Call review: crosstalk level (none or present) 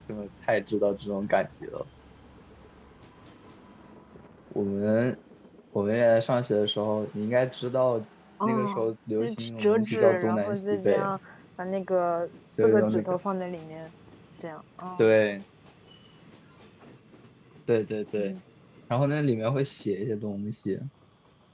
present